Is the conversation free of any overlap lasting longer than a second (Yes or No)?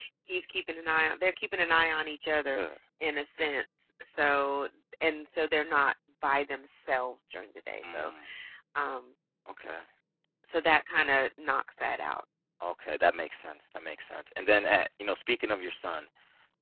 Yes